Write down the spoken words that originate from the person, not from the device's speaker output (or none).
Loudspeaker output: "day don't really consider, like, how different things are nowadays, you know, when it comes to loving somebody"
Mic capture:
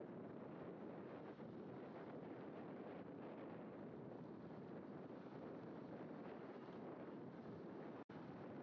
none